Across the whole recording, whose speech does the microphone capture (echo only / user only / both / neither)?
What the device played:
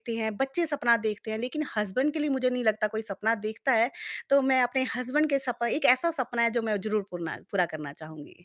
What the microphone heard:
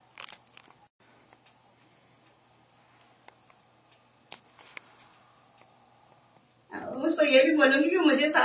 user only